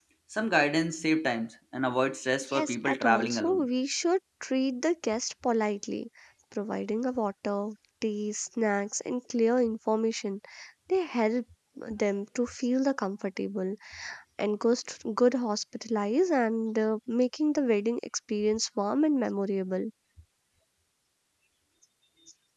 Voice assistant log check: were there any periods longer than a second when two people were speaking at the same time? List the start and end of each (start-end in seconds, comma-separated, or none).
2.4-3.7